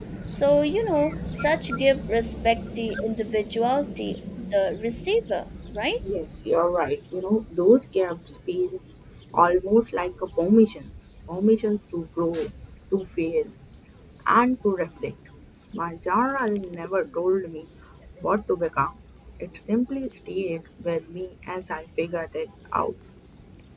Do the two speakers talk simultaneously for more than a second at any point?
No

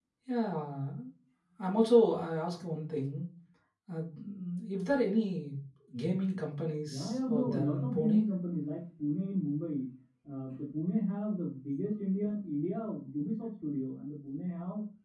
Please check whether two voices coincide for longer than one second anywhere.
Yes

